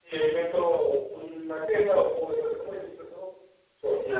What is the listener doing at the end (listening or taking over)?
listening